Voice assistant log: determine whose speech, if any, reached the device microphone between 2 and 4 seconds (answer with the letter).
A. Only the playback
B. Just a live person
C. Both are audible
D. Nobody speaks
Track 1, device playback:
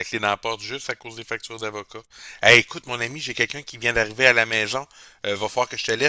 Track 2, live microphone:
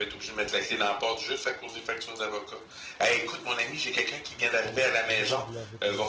A